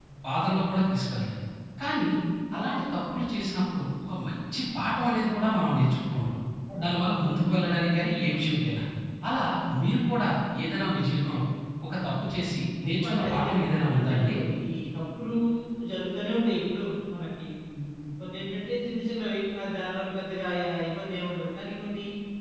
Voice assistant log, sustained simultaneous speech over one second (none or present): present